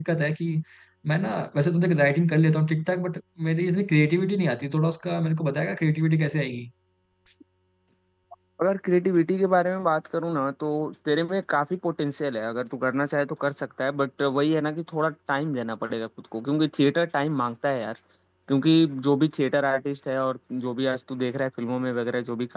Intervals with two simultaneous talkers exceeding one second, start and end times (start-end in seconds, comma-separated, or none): none